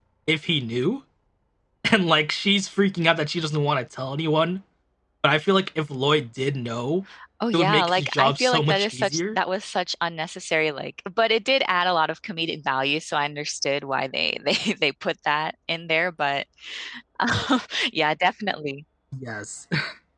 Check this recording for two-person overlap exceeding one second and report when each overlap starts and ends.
7.5-9.4

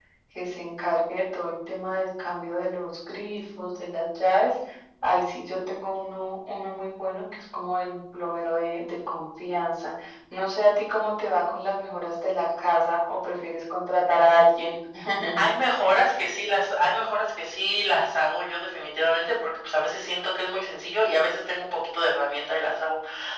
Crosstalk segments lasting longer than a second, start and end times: none

